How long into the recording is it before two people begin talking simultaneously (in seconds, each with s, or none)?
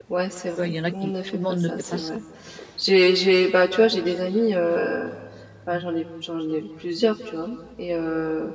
0.6 s